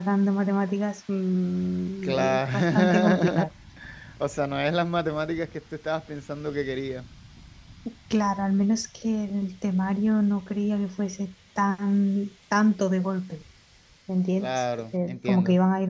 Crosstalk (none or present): present